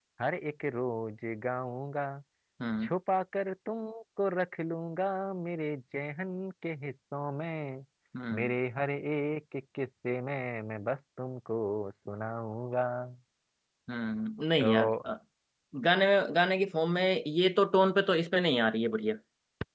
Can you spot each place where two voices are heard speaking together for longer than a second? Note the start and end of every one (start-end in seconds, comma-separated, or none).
none